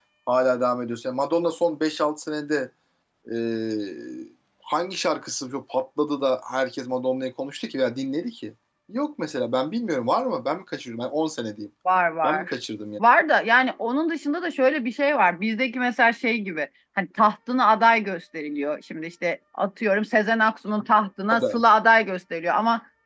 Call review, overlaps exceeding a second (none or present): none